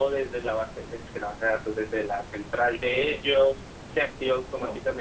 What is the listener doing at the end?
listening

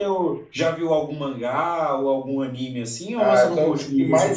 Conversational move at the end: taking over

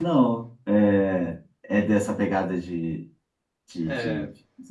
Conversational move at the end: taking over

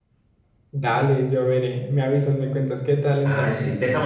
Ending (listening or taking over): taking over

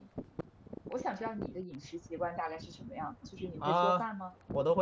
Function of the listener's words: taking over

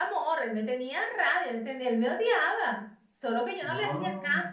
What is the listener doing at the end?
listening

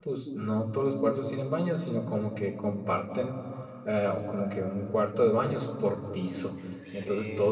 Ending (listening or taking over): listening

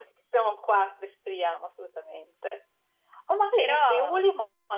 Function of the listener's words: listening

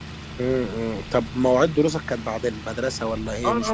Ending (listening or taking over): taking over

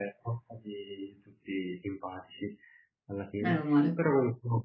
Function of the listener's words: listening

